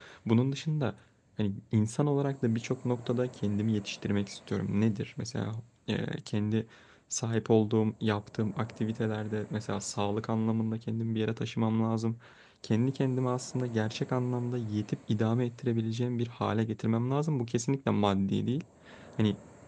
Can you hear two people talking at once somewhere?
No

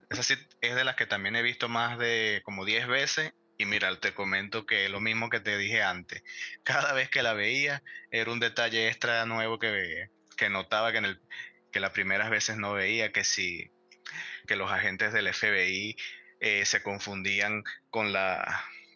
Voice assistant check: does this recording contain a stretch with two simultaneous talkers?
No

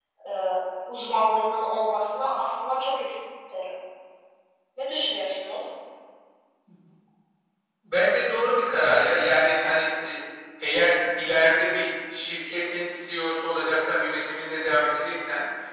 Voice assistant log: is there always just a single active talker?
Yes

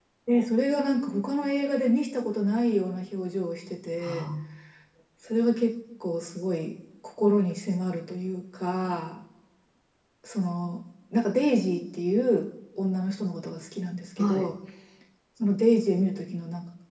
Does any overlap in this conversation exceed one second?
No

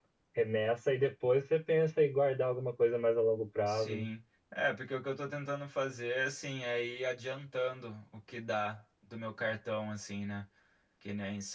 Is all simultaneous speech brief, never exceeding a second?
Yes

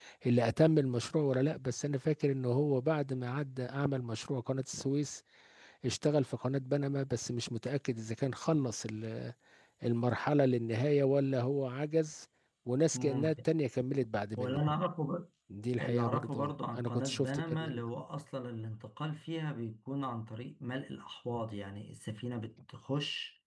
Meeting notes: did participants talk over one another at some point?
Yes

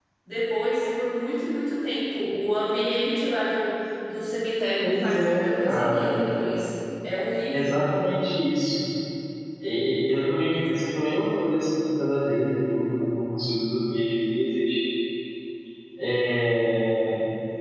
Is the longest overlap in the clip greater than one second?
Yes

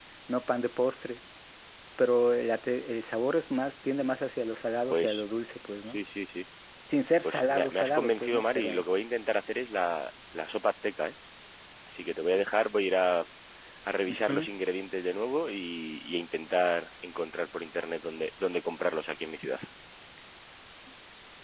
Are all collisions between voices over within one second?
No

